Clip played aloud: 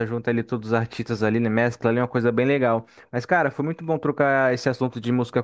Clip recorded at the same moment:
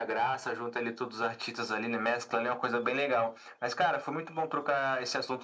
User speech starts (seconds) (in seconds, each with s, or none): none